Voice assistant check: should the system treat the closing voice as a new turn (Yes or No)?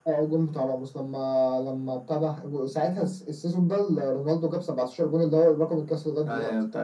Yes